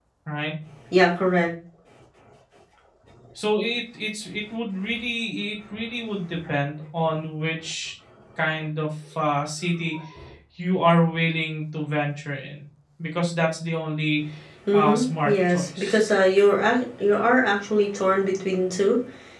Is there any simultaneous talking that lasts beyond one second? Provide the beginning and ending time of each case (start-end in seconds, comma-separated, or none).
14.7-16.1